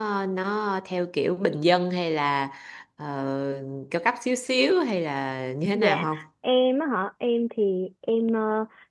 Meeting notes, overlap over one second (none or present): none